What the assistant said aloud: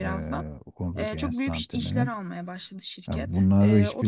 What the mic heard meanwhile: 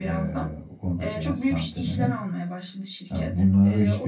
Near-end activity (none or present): none